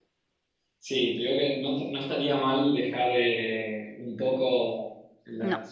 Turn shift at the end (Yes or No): No